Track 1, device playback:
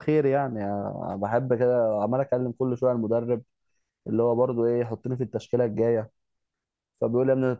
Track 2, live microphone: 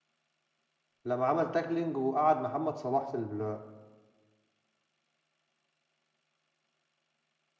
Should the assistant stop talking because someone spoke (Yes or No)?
Yes